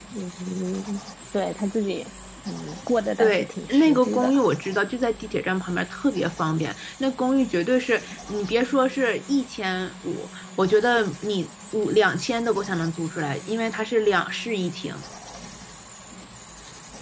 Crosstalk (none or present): present